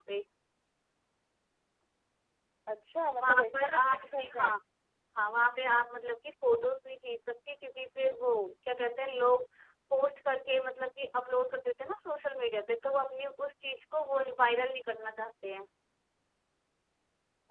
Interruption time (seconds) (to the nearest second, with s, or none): 3 s